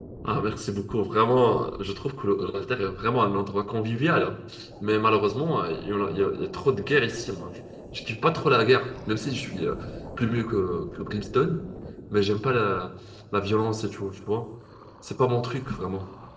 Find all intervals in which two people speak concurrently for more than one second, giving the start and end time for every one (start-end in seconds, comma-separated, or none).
none